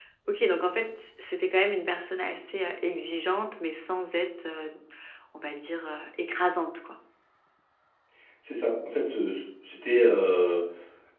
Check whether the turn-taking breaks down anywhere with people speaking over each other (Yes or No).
No